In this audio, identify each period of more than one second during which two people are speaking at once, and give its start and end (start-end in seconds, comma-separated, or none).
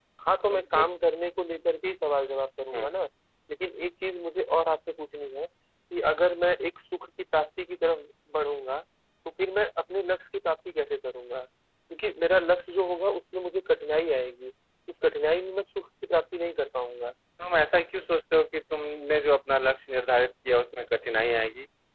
none